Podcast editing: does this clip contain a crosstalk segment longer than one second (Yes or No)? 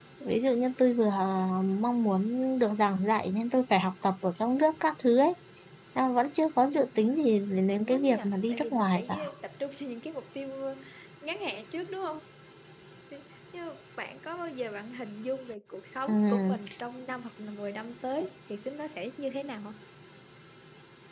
Yes